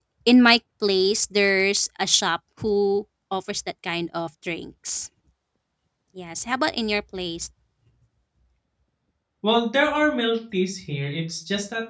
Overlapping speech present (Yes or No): No